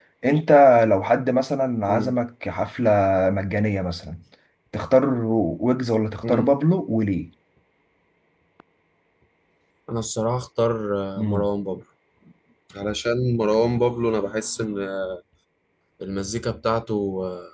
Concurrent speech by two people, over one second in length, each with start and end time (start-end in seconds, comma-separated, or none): none